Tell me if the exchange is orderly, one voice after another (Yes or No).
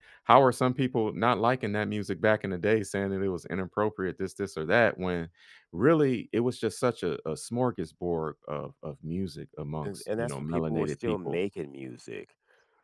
No